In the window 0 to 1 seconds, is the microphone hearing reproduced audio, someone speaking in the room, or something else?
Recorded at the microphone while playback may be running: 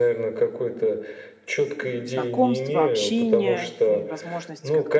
echo only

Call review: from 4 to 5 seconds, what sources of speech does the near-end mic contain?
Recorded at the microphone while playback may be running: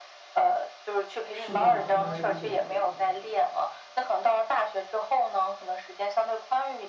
echo only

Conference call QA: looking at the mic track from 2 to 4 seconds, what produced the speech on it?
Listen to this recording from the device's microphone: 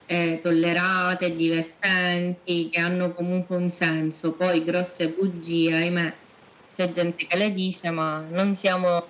echo only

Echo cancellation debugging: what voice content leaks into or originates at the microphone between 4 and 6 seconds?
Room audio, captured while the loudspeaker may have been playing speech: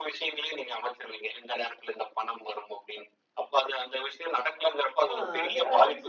both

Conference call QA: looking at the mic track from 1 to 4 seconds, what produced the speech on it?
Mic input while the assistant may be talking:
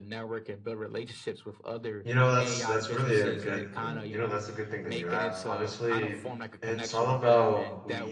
both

